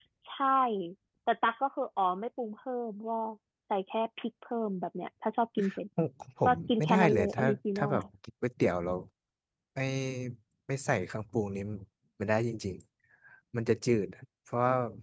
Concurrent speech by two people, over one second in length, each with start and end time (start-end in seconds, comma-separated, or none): 6.5-7.9